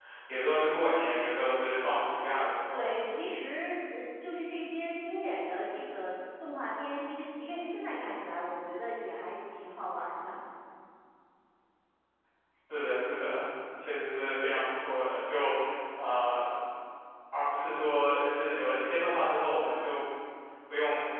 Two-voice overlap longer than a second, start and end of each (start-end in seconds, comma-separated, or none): none